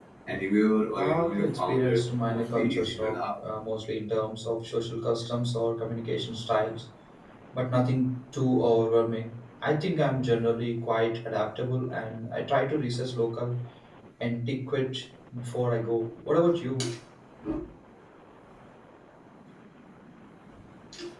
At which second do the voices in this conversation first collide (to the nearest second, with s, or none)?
1 s